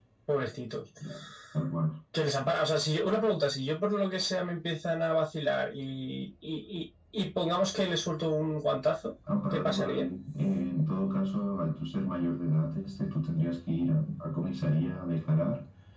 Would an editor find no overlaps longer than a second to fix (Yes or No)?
Yes